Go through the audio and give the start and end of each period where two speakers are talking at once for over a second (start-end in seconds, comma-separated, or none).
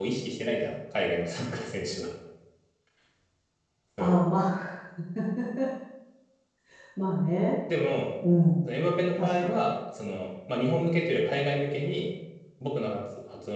none